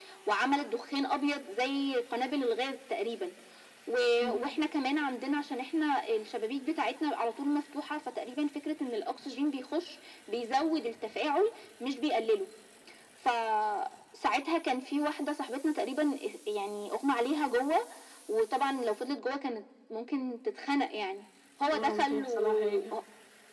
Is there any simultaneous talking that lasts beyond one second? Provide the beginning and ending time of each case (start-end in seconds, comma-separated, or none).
21.7-22.9